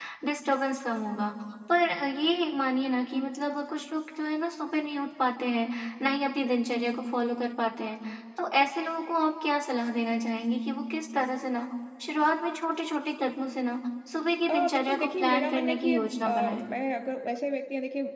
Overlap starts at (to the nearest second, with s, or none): 14 s